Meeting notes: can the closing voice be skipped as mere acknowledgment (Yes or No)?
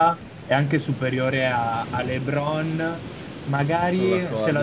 Yes